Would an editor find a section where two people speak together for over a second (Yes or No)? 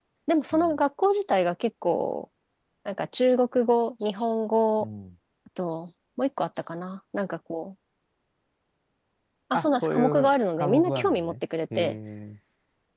Yes